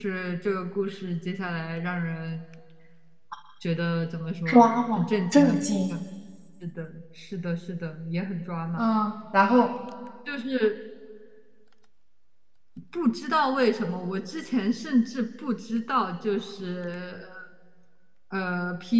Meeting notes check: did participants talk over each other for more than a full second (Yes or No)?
Yes